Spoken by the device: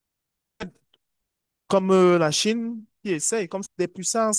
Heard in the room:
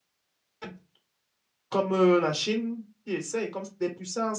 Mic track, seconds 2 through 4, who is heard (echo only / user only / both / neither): echo only